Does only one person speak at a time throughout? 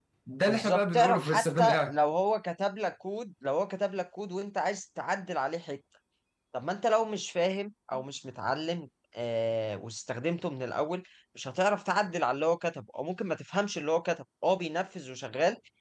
No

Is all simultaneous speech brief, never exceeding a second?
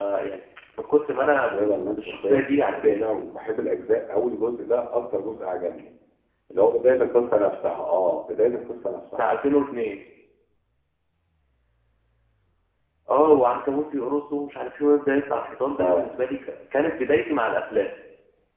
No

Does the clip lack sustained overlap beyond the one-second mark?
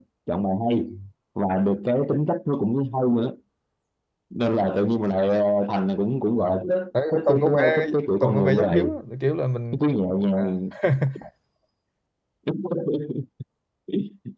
No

